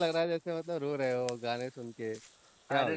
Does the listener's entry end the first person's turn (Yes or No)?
Yes